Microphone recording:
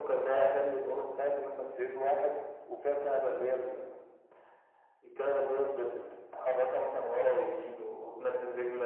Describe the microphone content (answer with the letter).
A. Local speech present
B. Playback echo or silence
B